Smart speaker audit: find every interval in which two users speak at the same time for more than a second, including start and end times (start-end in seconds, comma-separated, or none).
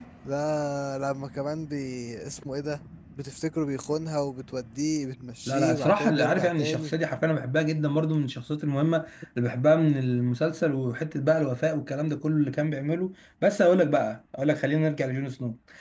5.5-6.9